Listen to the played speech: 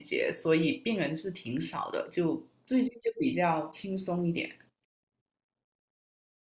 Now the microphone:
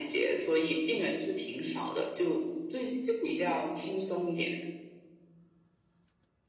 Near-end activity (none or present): none